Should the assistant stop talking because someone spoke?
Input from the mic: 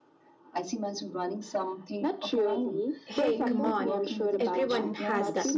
Yes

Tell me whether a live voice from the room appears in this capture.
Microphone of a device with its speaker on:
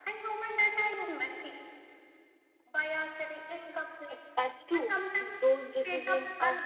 Yes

